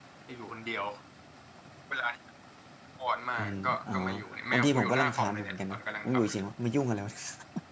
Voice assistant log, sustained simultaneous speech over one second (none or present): present